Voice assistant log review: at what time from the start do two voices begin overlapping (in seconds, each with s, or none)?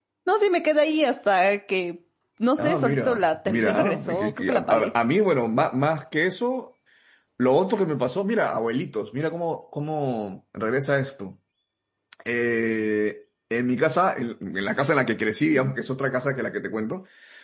2.6 s